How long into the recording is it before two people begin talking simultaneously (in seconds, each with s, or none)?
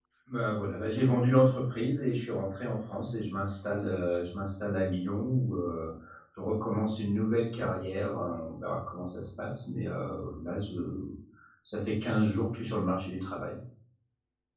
none